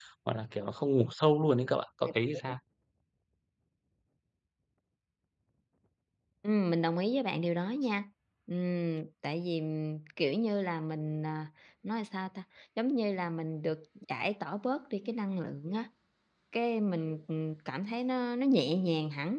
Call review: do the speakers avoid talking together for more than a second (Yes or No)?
Yes